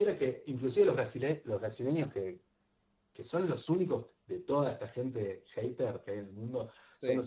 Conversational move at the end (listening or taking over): listening